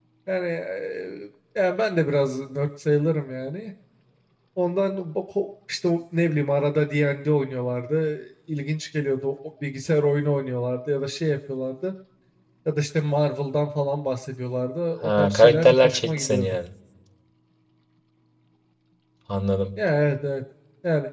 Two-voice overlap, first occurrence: 15.0 s

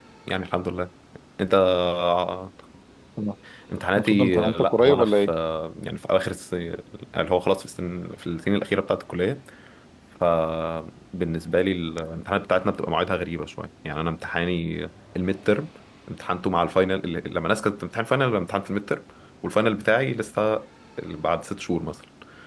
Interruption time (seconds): 4.0 s

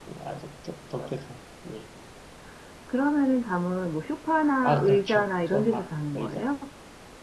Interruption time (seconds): 4.6 s

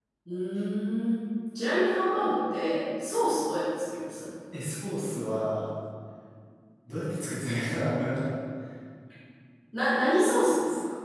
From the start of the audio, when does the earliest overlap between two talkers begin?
none

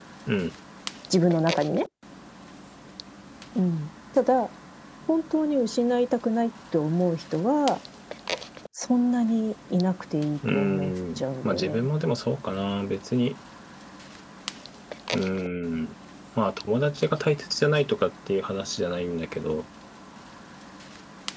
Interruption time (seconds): 10.4 s

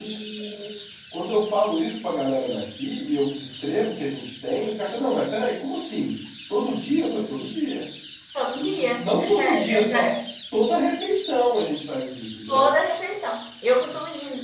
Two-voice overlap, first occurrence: 8.5 s

